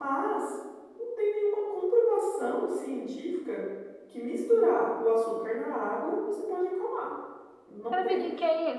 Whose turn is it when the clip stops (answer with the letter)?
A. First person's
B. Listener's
B